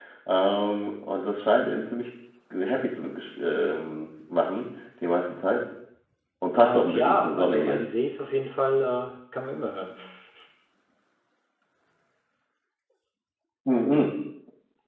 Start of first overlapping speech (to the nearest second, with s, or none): 7 s